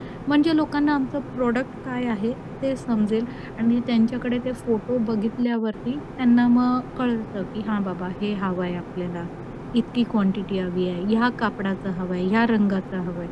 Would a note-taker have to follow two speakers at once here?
No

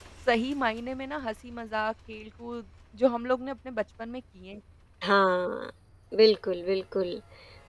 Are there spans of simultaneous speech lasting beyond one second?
No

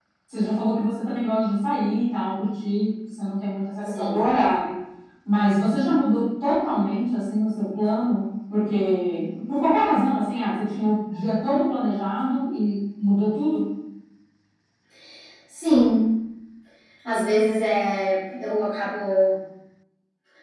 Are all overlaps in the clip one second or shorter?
Yes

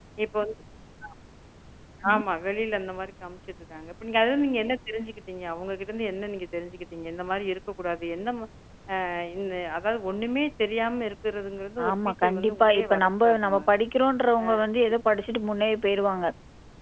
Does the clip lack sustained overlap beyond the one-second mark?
No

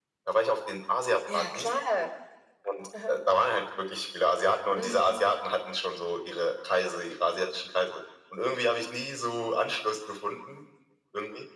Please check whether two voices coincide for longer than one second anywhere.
No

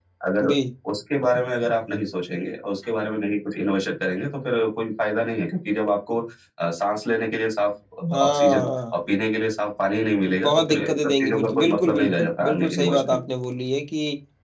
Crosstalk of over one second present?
Yes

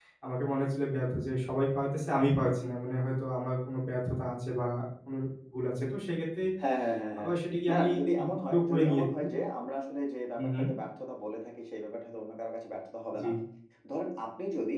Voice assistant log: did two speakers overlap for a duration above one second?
Yes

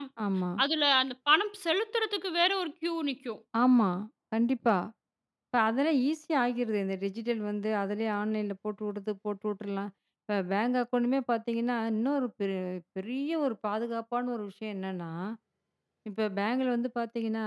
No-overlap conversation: Yes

